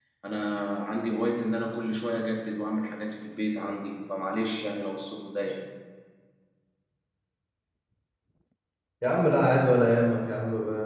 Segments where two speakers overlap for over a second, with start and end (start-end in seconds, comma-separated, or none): none